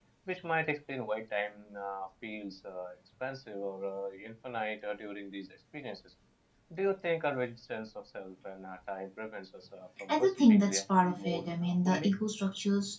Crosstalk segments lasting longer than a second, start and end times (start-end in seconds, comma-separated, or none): 10.1-12.1